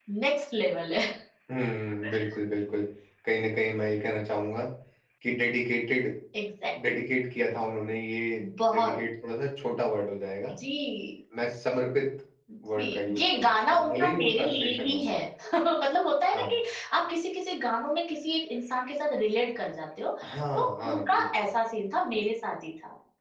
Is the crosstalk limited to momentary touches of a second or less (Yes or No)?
No